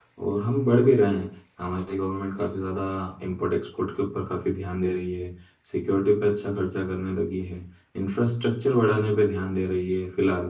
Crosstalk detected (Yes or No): No